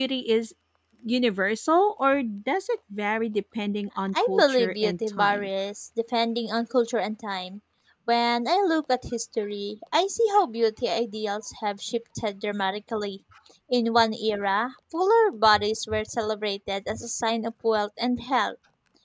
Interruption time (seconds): 4.1 s

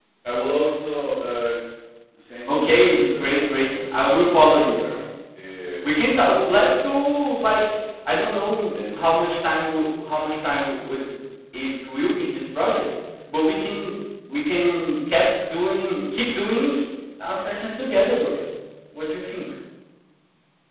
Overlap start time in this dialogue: 2.5 s

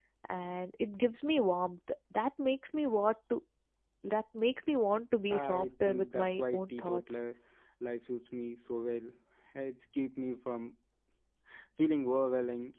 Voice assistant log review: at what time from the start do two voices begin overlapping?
5.3 s

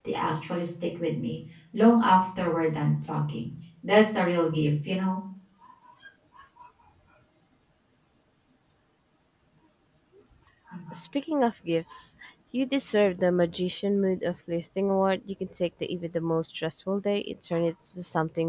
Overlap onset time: none

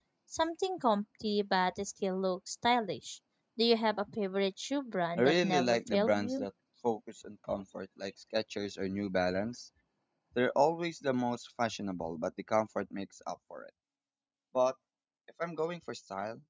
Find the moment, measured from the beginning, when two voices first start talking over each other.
5.2 s

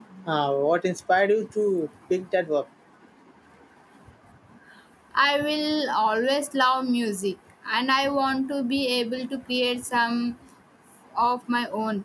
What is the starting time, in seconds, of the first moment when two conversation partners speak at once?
none

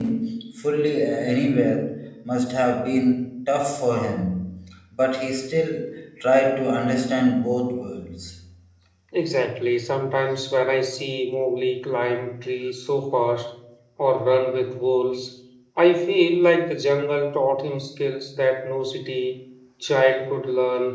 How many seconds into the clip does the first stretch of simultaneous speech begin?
none

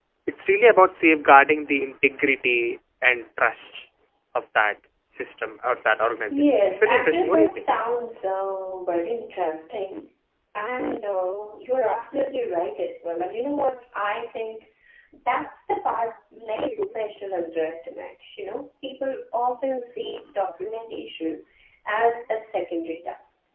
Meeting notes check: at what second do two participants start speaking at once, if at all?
6.3 s

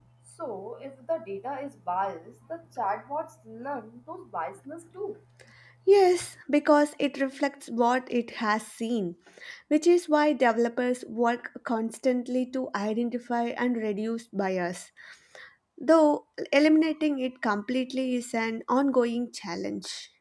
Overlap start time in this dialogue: none

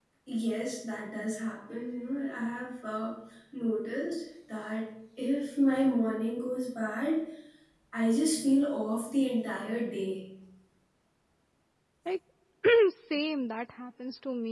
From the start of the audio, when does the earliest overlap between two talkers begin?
none

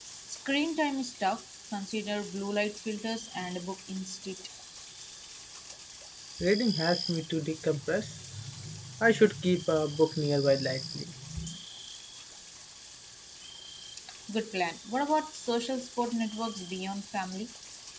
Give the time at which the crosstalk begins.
none

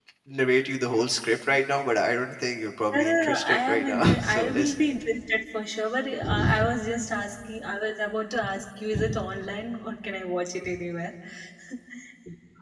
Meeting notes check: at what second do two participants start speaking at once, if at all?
2.9 s

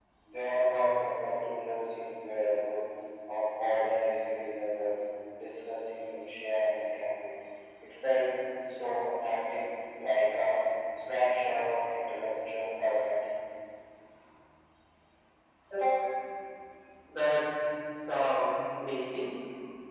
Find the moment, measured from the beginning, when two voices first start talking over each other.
none

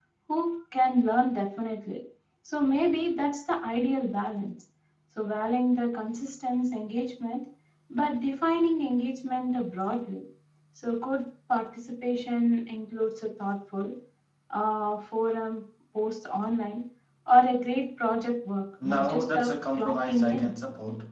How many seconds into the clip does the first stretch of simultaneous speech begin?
18.8 s

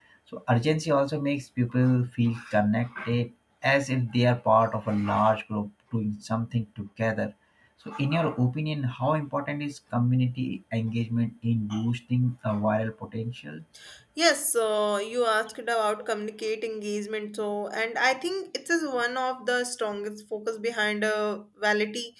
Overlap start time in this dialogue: none

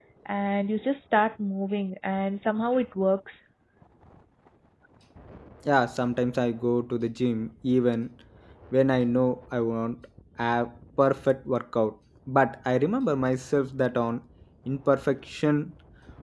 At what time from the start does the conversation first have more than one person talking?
none

